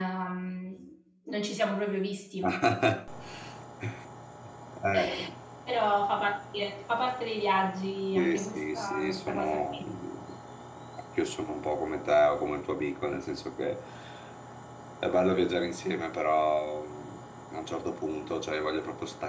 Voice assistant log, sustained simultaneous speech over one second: present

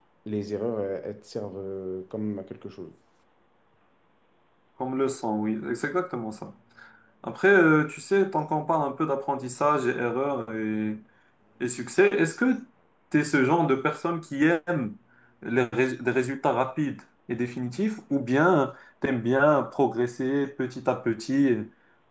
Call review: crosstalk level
none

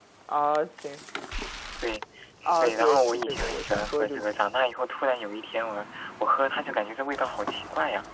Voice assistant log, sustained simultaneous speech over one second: present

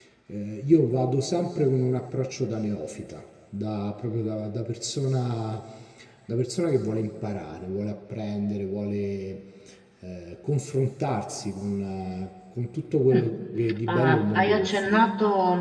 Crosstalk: present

